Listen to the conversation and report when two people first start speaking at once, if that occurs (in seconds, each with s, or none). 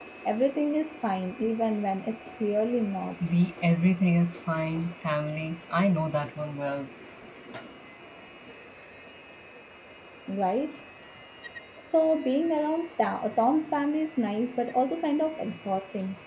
none